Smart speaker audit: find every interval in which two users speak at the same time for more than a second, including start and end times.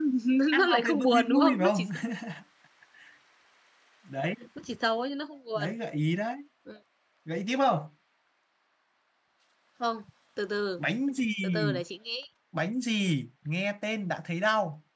0.5-1.9

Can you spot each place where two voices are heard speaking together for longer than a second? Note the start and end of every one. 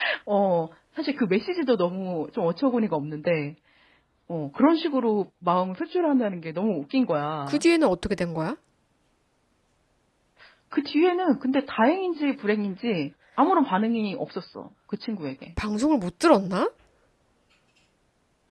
none

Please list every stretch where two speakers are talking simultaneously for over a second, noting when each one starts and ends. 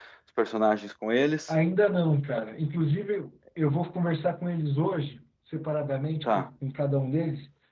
none

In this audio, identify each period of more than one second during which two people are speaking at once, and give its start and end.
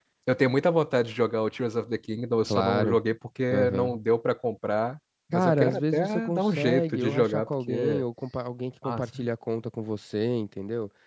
5.3-8.0

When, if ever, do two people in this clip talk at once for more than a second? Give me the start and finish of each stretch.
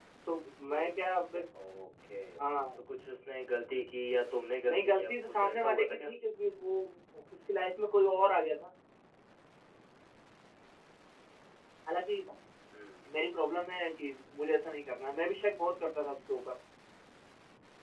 4.7-6.1

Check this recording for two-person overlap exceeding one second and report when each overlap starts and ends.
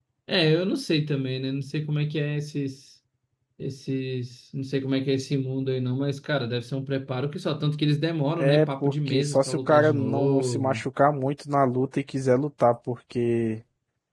8.4-10.9

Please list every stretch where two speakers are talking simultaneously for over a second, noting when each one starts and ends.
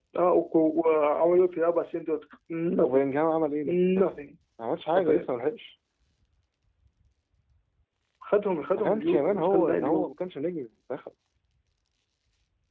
8.8-10.1

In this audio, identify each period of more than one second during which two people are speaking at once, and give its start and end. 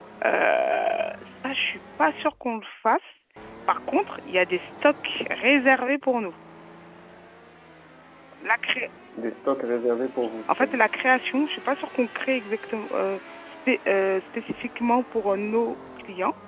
none

